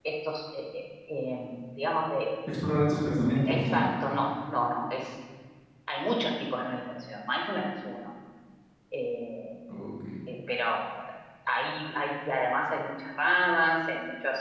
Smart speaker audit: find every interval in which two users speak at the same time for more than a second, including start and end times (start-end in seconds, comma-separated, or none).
none